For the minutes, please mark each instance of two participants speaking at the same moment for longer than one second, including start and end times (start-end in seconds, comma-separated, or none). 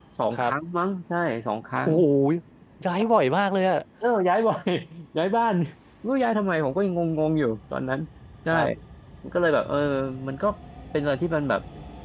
none